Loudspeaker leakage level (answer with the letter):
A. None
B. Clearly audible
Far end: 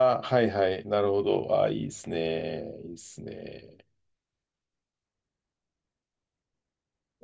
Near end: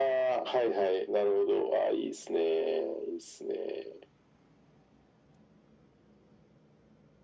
B